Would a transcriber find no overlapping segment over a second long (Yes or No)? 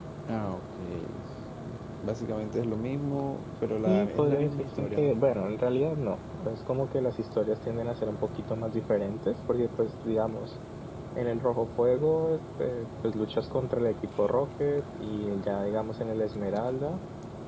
No